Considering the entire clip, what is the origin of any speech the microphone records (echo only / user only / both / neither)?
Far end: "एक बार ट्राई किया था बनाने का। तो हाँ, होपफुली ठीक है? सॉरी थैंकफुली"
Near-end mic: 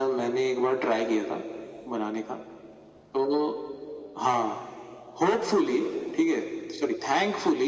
echo only